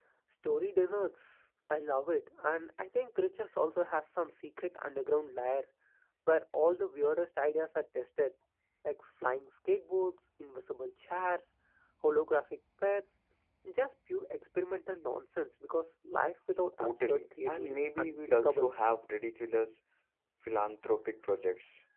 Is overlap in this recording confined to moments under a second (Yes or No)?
No